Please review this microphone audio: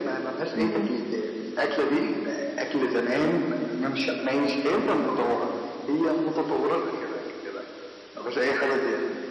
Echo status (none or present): present